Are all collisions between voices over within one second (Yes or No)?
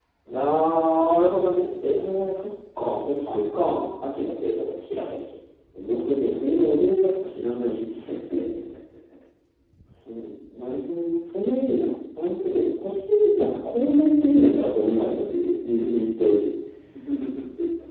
Yes